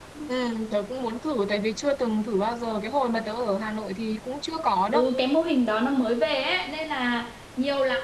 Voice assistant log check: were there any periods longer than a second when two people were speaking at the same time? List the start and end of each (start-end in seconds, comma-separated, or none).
none